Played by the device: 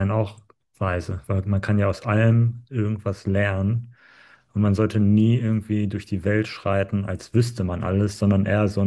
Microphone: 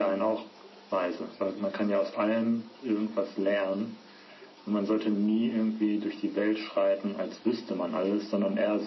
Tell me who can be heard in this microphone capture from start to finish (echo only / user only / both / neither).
echo only